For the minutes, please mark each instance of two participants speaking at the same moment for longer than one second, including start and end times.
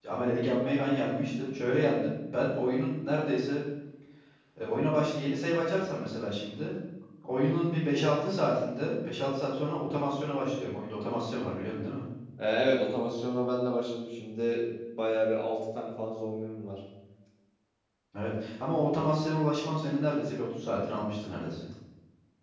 none

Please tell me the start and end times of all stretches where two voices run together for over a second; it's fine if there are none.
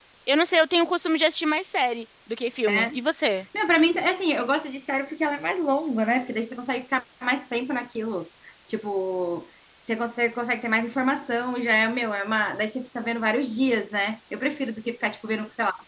none

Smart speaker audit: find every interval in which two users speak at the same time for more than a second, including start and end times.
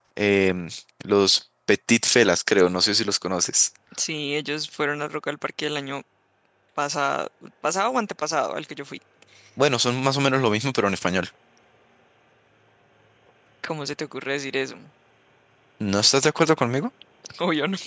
none

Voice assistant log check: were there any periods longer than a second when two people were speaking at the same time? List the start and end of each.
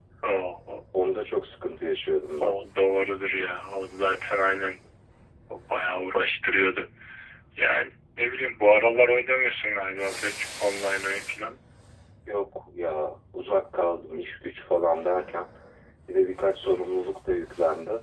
none

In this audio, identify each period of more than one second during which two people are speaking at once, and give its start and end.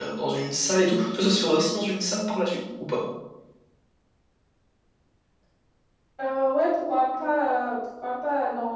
none

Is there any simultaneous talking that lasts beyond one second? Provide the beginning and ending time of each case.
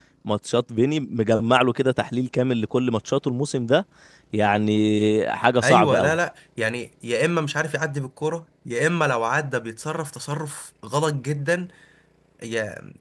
none

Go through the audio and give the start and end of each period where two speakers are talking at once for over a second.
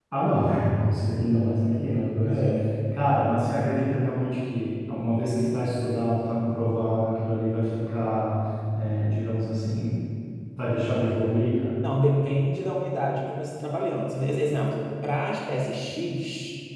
none

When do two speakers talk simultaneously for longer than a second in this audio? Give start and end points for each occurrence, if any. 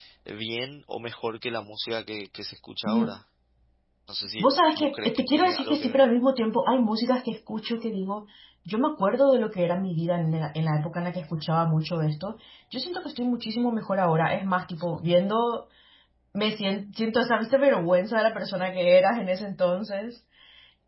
4.4-6.0

